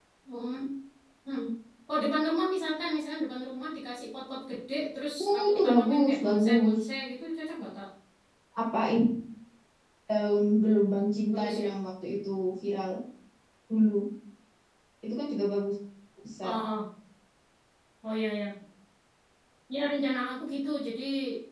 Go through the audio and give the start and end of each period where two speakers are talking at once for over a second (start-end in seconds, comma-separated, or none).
5.2-6.8